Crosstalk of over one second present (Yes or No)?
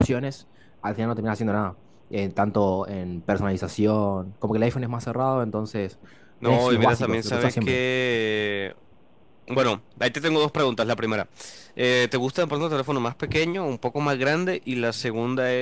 Yes